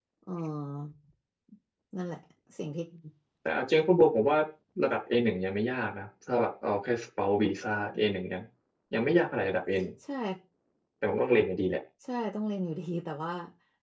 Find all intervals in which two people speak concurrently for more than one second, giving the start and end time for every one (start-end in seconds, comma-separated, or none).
none